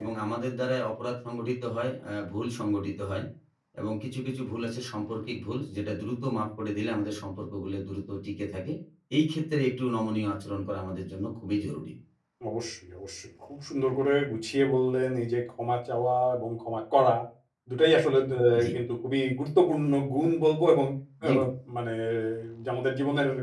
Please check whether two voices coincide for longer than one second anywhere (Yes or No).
No